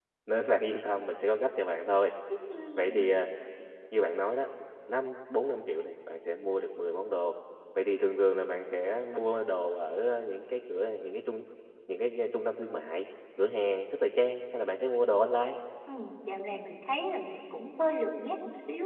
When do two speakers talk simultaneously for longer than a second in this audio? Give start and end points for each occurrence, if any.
none

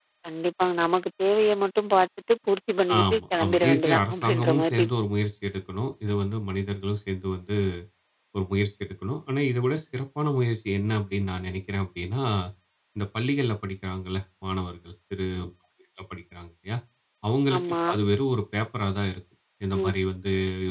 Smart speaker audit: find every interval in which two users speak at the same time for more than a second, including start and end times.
3.0-4.9

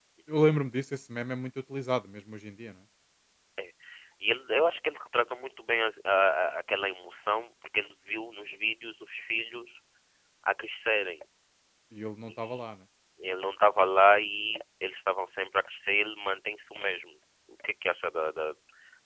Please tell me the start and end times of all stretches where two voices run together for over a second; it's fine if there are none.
none

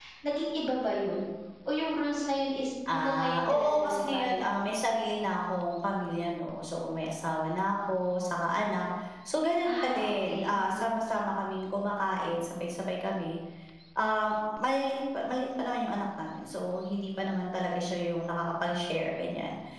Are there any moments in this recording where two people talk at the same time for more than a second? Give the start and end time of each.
2.9-4.5, 9.6-10.9

